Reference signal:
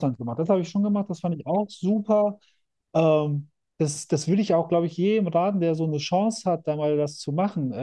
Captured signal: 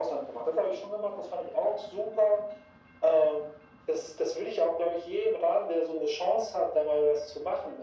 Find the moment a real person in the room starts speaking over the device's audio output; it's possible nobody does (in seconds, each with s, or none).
none